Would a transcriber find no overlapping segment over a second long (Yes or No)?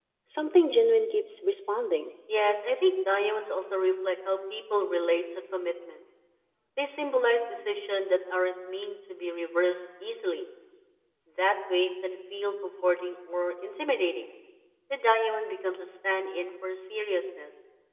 Yes